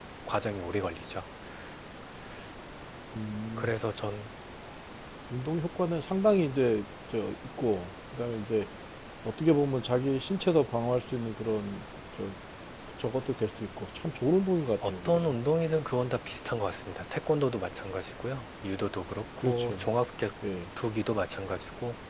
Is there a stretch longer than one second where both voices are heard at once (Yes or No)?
No